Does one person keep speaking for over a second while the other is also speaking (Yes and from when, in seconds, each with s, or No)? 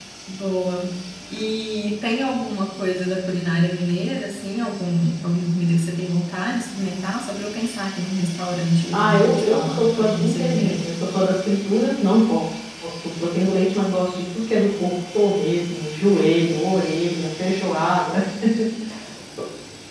Yes, from 8.9 s